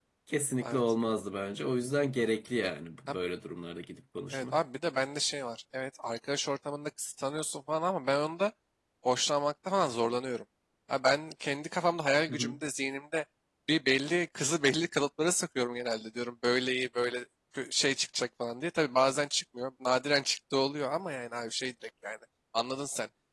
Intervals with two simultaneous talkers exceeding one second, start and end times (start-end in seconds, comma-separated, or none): none